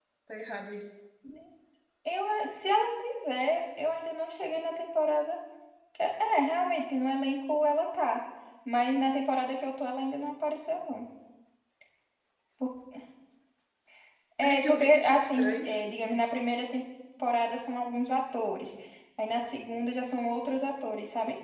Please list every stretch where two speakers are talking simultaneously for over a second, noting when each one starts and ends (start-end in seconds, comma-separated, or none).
14.4-15.7